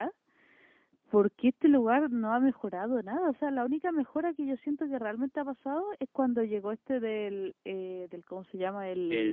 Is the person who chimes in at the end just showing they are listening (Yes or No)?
Yes